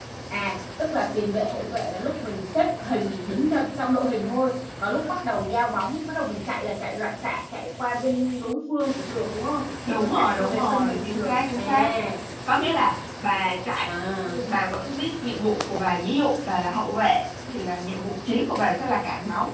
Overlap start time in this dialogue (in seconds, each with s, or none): 9.8 s